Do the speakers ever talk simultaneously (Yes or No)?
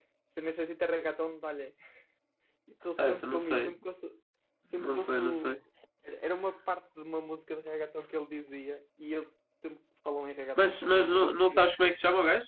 Yes